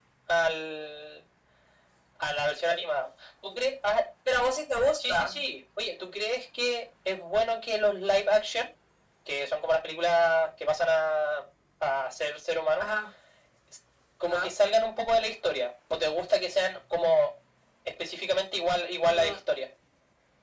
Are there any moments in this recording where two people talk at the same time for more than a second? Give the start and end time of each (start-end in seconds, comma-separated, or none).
none